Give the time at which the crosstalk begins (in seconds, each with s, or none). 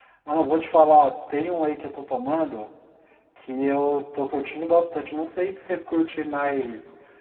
none